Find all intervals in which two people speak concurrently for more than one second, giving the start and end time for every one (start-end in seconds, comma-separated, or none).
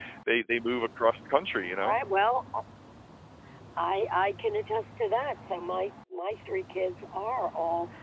none